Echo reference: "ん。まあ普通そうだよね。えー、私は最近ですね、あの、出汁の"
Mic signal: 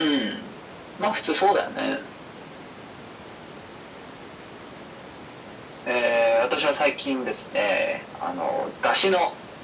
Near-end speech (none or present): none